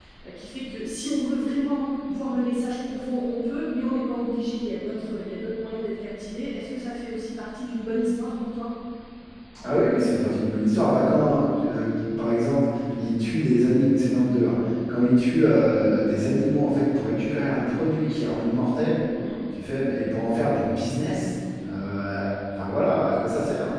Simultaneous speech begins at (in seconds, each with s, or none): none